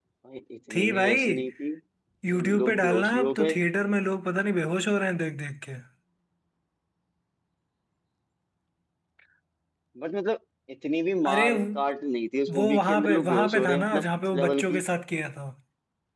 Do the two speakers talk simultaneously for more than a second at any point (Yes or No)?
Yes